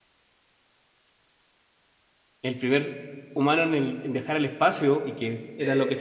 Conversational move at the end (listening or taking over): listening